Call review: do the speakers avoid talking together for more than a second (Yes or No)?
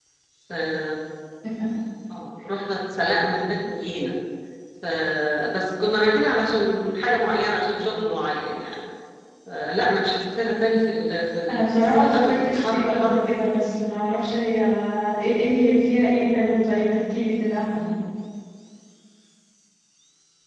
No